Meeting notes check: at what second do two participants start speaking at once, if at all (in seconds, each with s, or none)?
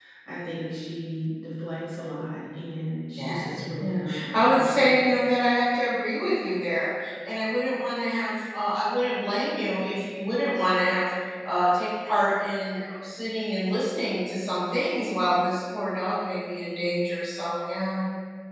3.2 s